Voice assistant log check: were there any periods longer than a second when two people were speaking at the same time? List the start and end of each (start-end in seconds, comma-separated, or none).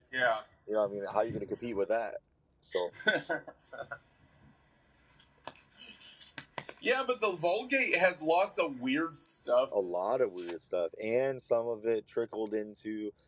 none